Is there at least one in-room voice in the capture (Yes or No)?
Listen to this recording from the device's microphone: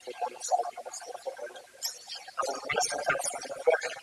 No